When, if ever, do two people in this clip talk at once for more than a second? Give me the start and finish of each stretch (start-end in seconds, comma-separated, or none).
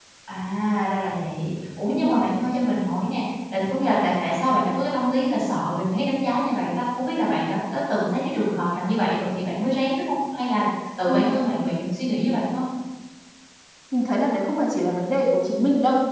none